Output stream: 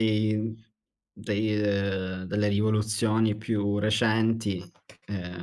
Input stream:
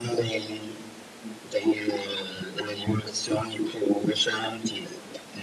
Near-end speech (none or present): none